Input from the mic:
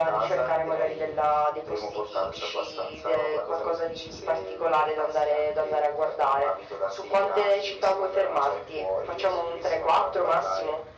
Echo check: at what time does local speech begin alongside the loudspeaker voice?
none

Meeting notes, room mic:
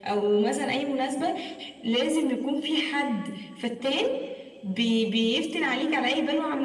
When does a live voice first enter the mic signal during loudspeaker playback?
none

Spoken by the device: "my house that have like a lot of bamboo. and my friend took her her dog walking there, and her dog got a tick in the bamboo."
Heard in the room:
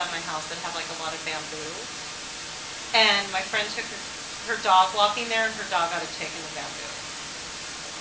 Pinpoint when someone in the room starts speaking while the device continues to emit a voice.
none

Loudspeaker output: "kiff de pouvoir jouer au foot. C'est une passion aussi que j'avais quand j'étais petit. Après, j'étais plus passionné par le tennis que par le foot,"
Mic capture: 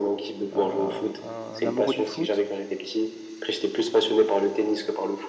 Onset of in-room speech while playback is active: 0.5 s

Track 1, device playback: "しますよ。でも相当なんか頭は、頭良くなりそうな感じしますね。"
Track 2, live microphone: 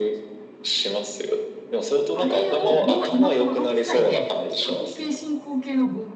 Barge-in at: 2.1 s

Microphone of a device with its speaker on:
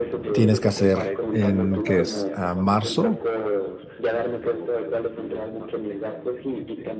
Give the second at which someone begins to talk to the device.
0.3 s

